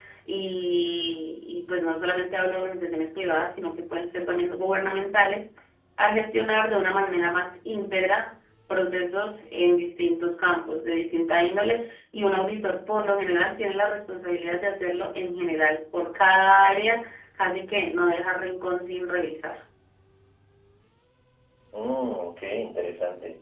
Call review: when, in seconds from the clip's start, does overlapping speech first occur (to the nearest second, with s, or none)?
none